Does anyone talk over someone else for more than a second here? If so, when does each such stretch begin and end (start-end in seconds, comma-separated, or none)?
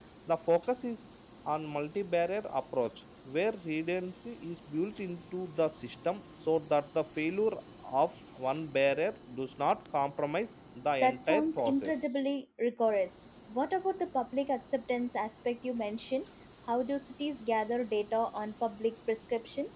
11.0-12.2